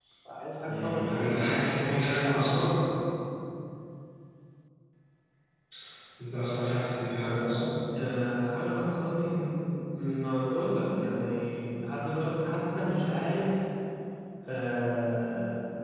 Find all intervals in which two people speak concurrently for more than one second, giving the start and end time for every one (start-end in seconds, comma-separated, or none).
0.7-2.6